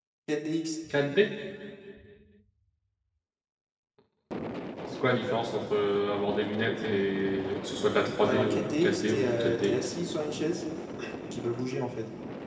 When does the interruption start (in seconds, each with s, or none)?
8.2 s